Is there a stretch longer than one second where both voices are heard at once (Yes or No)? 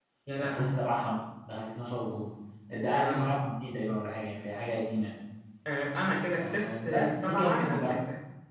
Yes